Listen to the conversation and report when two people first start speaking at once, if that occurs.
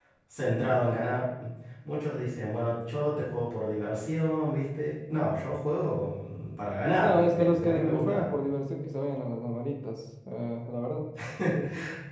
7 s

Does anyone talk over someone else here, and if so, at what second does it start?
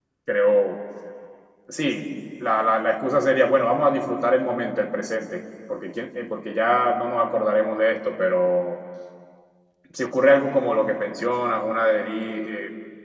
none

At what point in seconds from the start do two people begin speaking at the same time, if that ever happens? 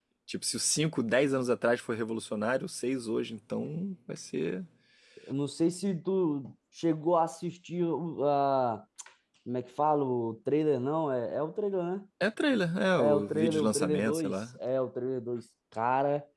13 s

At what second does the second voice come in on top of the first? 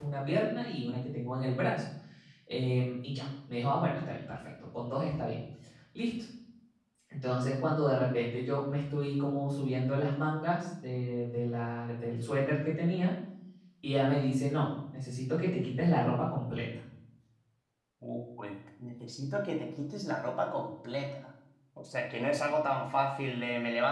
none

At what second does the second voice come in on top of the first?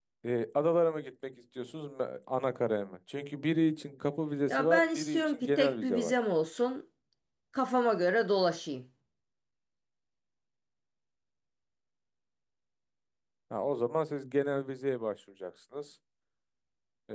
4 s

